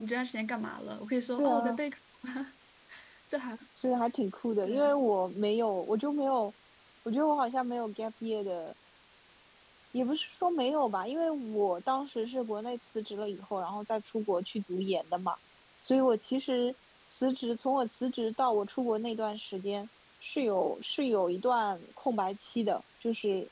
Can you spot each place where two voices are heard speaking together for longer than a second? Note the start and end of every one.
none

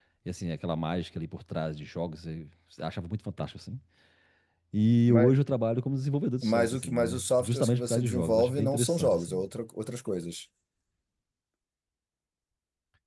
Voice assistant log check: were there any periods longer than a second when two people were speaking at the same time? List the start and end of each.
6.4-9.4

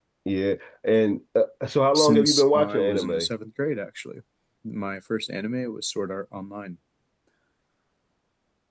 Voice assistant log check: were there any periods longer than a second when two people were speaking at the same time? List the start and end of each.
1.9-3.3

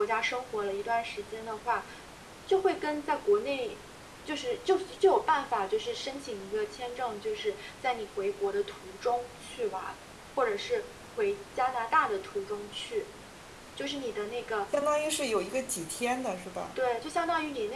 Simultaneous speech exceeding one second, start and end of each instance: none

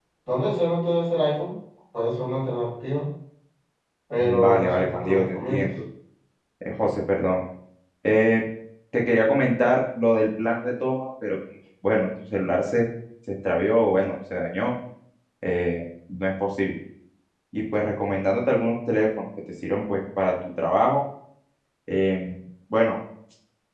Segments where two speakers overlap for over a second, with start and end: 4.2-5.7

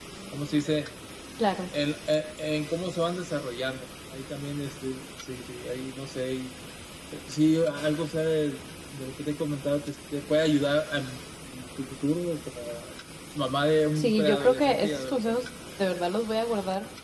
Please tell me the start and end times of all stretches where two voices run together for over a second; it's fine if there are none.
14.0-15.4

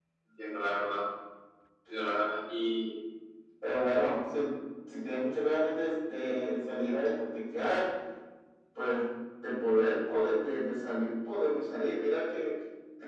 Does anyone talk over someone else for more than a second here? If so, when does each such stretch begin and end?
none

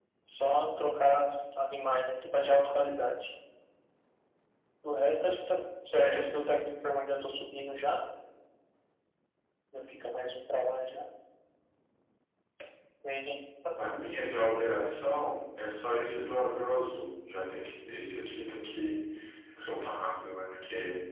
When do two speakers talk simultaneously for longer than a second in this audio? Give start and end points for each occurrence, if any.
none

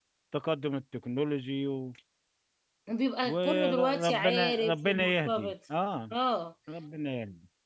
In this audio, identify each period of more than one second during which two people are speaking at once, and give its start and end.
3.2-5.5

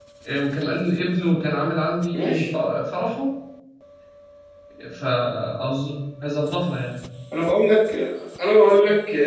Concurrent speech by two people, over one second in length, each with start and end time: none

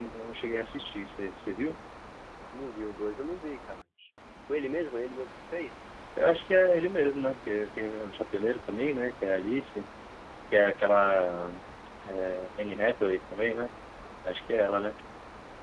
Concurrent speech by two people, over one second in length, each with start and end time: none

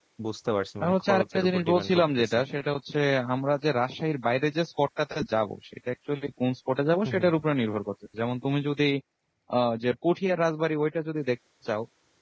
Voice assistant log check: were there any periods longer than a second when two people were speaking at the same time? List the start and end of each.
0.8-2.3

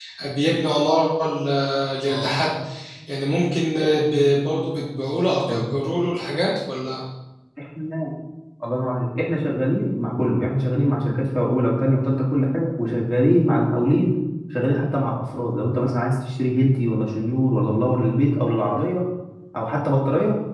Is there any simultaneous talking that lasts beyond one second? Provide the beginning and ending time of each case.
none

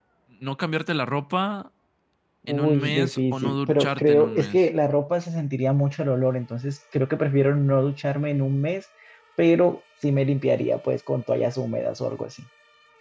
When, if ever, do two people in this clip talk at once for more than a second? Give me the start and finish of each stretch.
2.5-4.7

